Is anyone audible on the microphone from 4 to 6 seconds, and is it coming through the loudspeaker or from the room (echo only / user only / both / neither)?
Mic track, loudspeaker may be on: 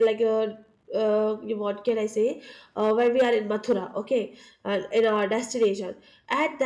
user only